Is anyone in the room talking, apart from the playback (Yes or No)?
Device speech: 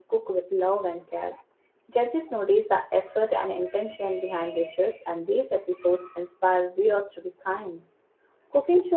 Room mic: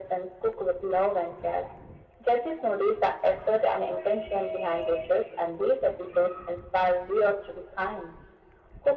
No